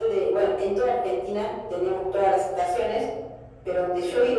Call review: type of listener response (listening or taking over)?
listening